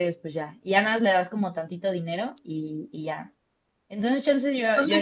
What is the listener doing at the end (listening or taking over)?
taking over